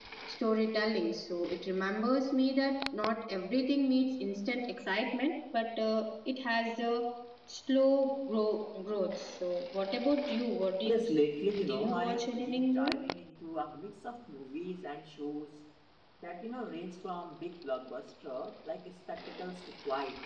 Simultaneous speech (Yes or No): Yes